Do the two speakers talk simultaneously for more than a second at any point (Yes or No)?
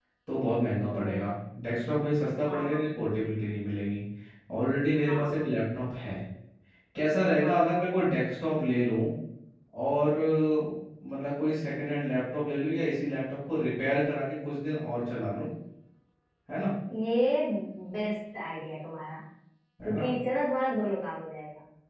No